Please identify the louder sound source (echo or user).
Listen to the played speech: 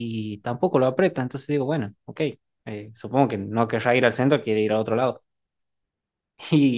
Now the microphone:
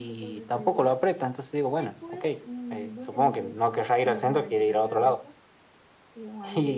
echo